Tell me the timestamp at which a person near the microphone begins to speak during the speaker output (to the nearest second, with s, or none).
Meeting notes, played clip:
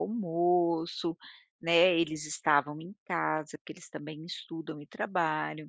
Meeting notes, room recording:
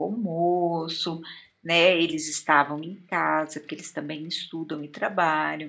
none